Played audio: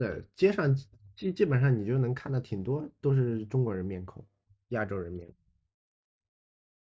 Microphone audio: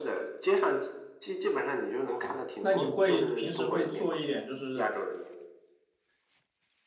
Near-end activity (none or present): present